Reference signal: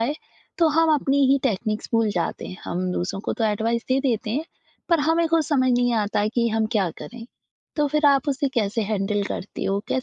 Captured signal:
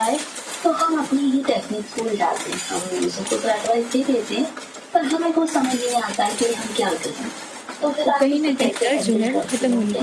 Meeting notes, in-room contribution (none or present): present